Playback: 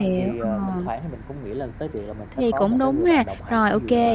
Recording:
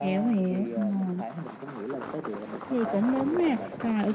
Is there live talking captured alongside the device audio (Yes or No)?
No